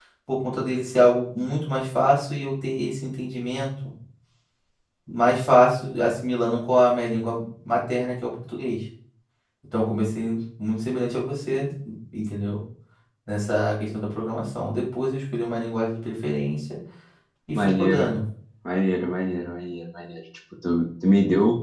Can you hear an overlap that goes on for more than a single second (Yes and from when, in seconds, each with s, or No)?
No